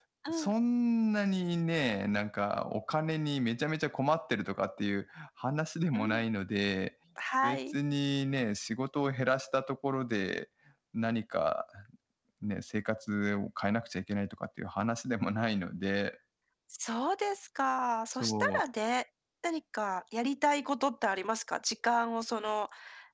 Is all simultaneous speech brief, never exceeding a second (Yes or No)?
Yes